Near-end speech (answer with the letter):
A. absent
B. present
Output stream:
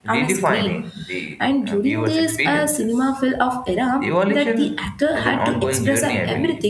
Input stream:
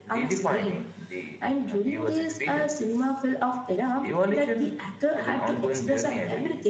A